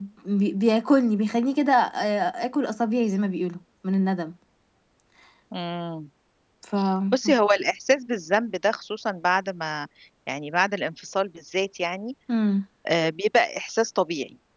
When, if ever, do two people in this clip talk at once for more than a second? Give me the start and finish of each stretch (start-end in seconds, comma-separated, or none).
none